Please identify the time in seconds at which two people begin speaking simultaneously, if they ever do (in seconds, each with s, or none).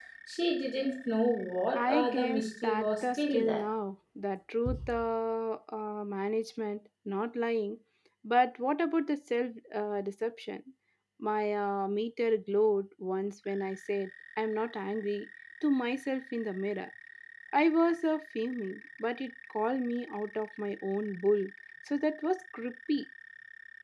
1.7 s